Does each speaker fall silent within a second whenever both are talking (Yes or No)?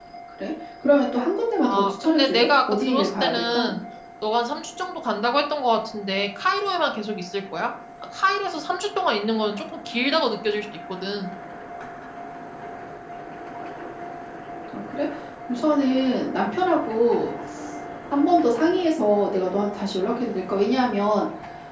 No